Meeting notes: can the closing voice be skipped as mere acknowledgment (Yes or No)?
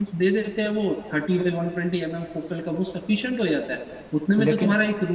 Yes